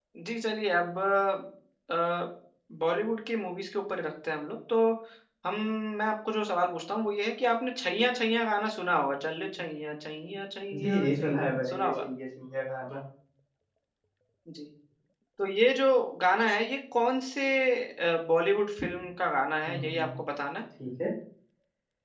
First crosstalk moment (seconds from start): 10.7 s

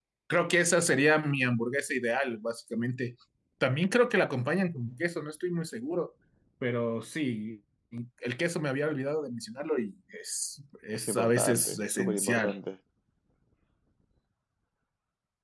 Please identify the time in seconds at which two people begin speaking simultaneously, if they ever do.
10.9 s

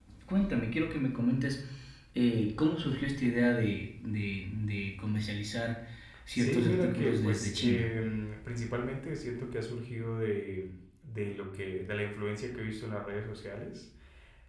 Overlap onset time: 6.4 s

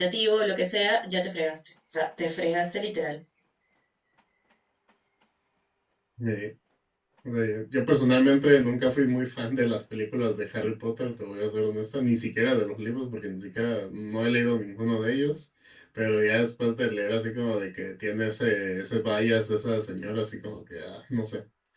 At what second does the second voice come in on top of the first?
none

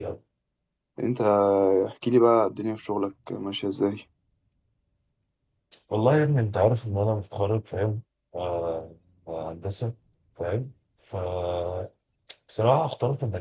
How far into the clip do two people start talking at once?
none

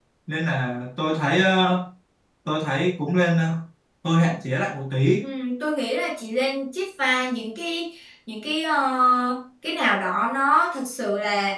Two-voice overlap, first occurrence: none

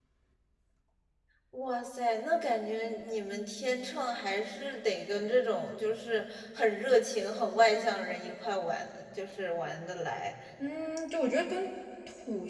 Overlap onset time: none

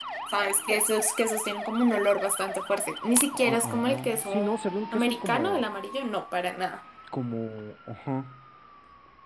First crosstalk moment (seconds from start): 3.3 s

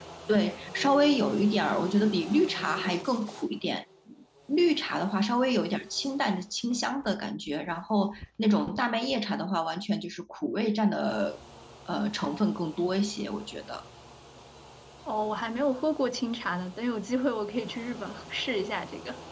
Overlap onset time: none

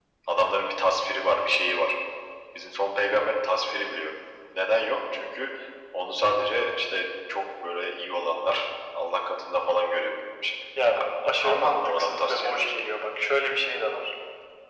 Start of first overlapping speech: 11.0 s

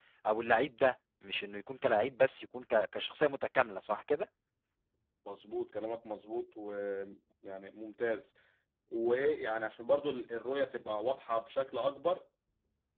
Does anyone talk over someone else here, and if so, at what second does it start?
none

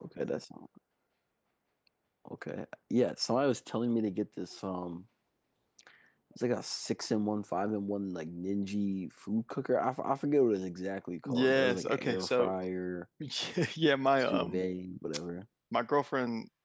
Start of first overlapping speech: 11.2 s

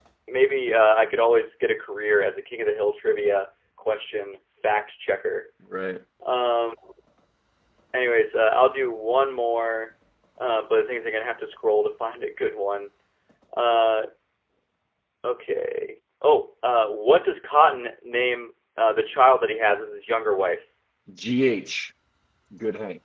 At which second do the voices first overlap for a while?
none

